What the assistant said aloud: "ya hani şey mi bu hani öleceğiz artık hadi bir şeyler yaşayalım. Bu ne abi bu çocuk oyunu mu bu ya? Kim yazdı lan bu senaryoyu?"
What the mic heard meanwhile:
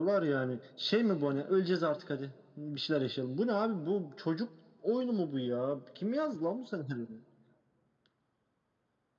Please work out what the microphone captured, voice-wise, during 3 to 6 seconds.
echo only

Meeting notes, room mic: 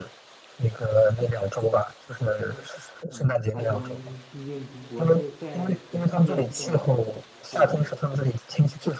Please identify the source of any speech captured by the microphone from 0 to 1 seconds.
echo only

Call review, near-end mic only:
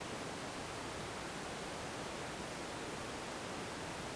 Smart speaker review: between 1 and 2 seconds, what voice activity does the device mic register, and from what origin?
neither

